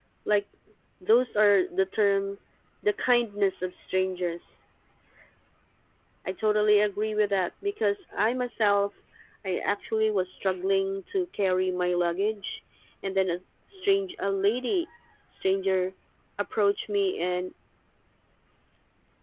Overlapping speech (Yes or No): No